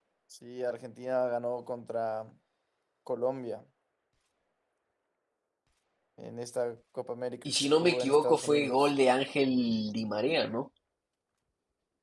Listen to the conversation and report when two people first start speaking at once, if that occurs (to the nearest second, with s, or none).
7 s